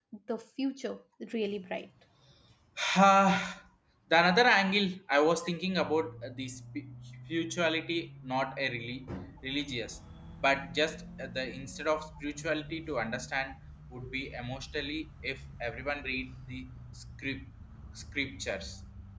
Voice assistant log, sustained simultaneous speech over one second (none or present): none